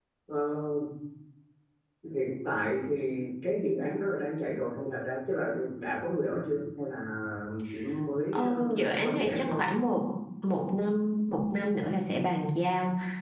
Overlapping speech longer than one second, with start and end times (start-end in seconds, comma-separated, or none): 8.3-9.6